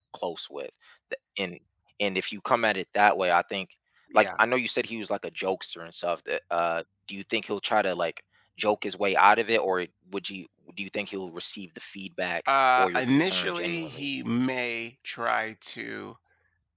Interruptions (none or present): present